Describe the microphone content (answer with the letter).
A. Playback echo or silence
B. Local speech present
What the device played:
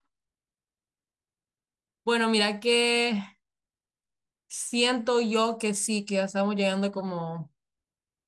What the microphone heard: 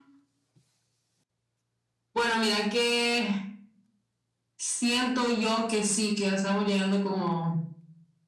A